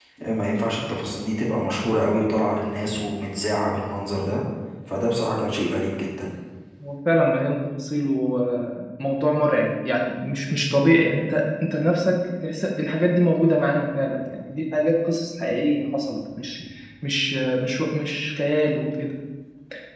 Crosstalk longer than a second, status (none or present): none